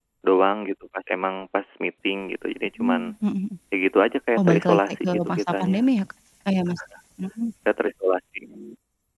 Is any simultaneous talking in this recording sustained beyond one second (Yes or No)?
Yes